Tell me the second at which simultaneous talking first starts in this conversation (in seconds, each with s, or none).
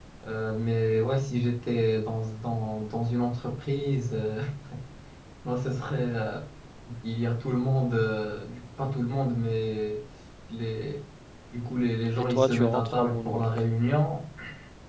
12.2 s